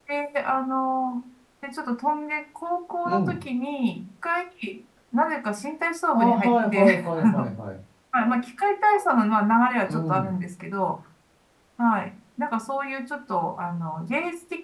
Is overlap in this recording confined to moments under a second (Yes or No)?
No